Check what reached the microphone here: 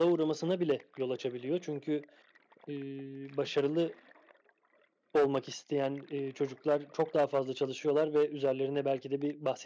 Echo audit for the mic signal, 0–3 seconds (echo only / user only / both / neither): user only